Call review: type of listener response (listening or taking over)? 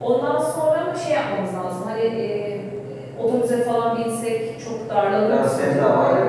taking over